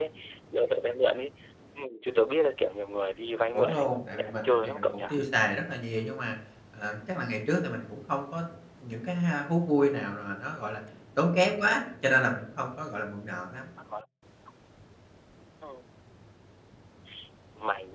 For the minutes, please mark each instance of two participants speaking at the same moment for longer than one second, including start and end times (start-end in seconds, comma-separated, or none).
3.5-5.0